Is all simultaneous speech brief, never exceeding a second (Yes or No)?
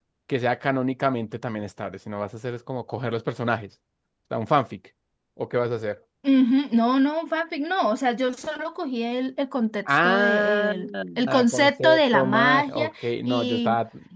No